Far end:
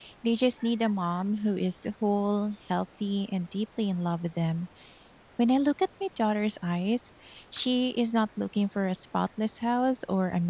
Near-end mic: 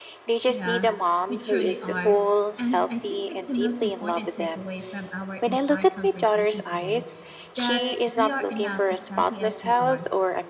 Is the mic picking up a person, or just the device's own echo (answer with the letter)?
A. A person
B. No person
A